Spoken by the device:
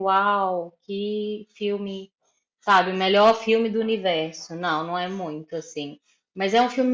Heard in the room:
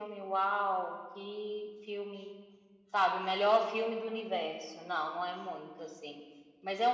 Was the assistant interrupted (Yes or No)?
No